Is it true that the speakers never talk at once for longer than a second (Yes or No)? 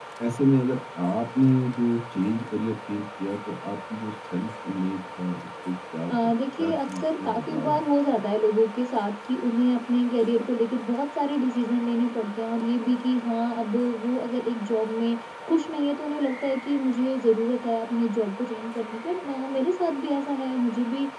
No